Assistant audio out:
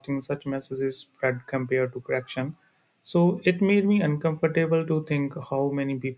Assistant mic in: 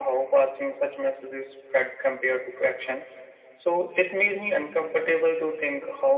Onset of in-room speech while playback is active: none

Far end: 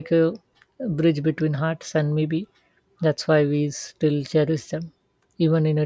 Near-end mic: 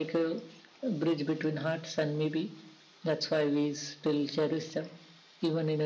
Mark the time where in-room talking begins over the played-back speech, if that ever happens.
none

